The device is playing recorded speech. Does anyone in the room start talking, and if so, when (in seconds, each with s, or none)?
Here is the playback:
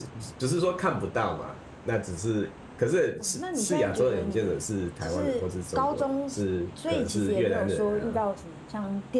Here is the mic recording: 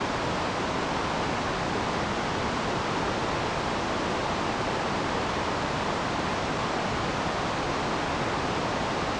none